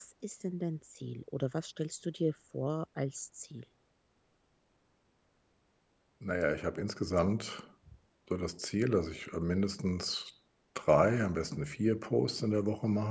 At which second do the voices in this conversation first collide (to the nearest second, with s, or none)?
none